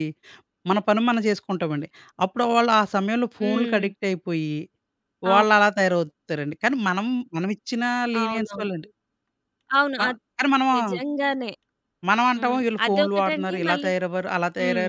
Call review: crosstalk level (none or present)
present